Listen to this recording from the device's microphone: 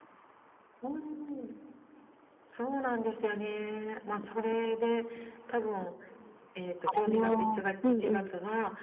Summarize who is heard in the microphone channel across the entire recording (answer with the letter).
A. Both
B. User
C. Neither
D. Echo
A